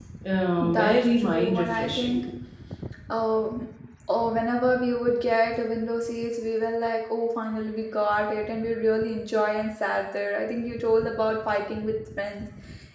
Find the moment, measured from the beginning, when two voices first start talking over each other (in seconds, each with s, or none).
0.6 s